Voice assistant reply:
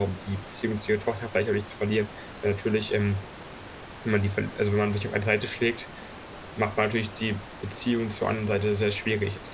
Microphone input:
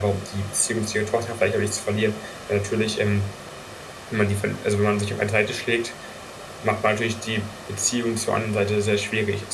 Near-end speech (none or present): none